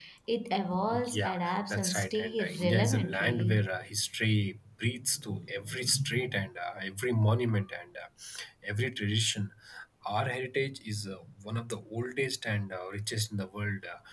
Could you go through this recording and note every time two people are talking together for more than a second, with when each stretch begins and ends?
0.9-3.6

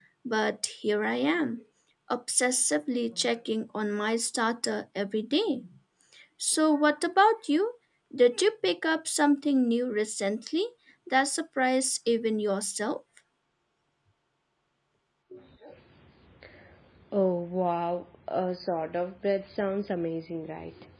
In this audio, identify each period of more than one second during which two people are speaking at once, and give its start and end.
none

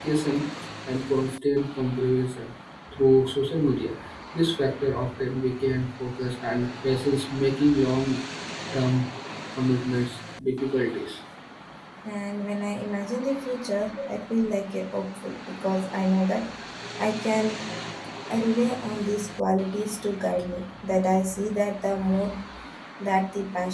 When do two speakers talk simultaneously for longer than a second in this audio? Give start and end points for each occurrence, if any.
none

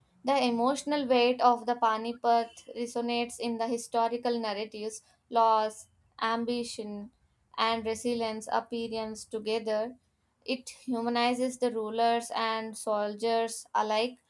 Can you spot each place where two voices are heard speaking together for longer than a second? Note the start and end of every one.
none

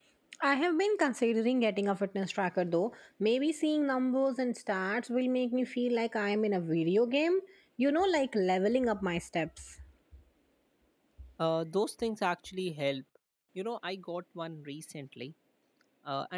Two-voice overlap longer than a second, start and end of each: none

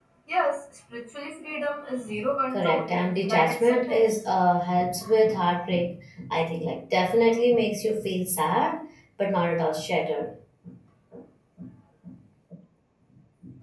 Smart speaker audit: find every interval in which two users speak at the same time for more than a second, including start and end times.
2.5-4.0

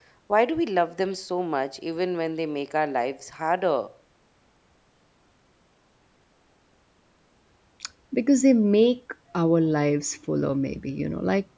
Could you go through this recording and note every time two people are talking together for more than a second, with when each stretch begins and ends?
none

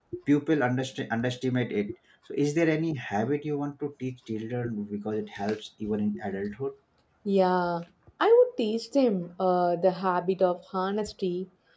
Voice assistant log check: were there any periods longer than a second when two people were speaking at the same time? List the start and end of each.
none

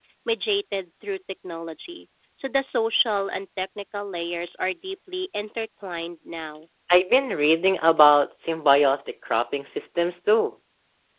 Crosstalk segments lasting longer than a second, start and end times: none

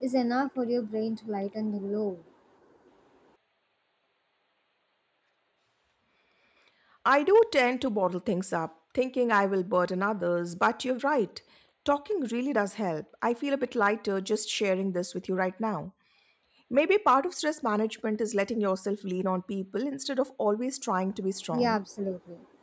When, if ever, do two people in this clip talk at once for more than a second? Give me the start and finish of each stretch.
none

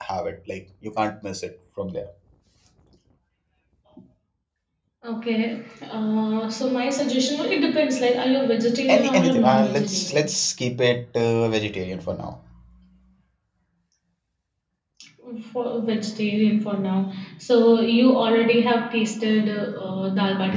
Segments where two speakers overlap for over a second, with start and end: 8.9-10.3

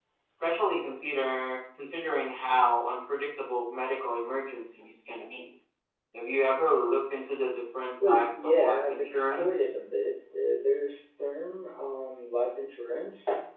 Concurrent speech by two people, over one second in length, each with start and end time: 8.1-9.7

